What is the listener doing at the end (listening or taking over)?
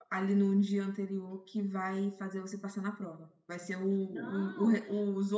listening